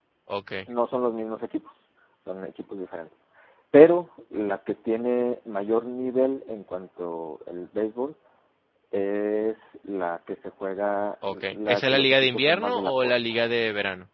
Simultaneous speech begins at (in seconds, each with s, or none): 11.2 s